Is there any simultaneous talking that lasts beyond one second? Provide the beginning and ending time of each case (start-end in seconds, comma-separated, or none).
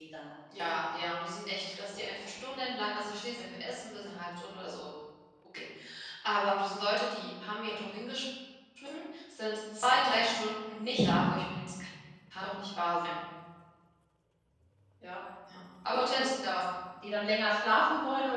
none